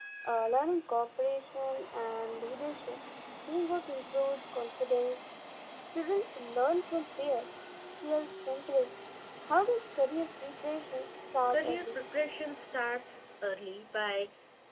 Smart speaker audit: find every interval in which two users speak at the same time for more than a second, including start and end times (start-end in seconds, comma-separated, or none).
none